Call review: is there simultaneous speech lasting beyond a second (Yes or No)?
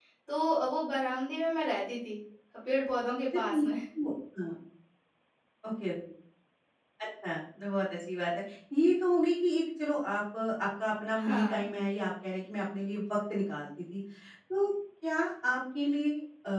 No